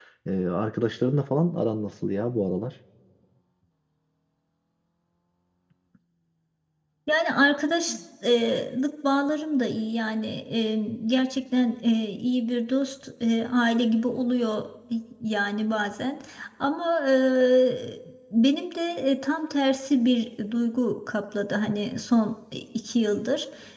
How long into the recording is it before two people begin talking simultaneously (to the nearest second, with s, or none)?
none